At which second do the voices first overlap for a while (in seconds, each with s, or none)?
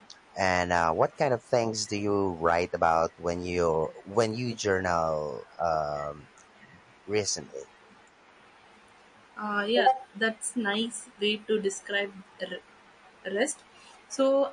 none